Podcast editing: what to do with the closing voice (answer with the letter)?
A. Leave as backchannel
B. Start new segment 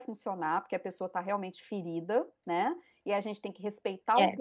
A